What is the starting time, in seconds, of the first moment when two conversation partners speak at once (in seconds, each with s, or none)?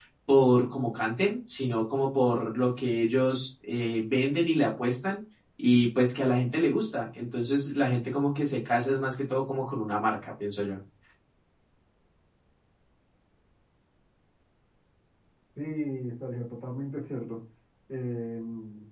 none